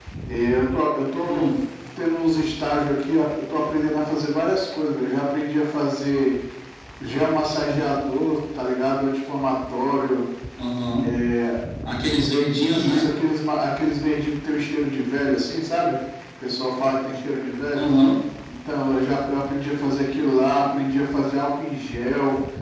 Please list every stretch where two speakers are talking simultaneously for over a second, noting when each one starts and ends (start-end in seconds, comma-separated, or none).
none